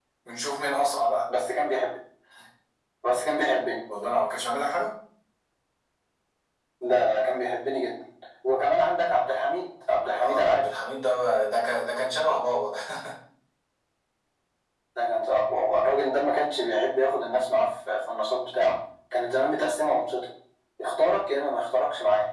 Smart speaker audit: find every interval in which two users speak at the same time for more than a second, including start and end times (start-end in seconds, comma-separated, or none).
none